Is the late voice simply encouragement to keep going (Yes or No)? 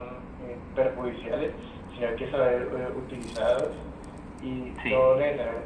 Yes